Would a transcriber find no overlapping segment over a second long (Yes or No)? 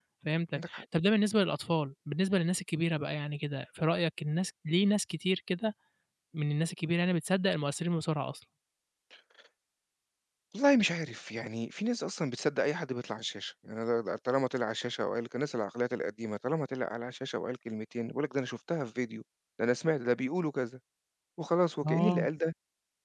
Yes